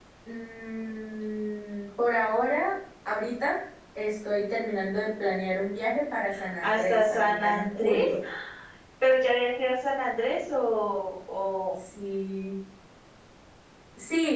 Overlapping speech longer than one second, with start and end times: 6.6-8.1

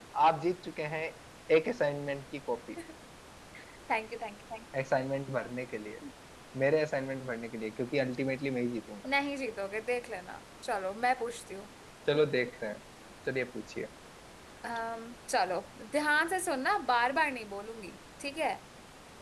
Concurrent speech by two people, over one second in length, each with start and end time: none

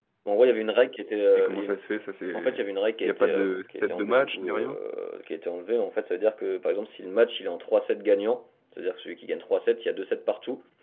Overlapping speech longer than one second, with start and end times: 3.1-4.8

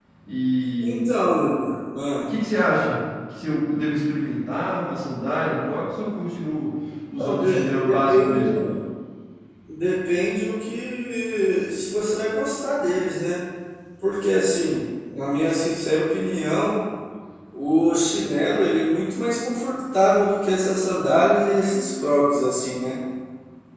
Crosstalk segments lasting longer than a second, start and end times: 7.2-8.4

